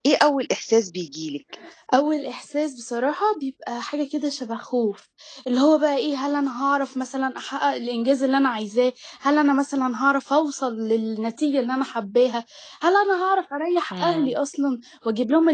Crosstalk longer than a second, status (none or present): none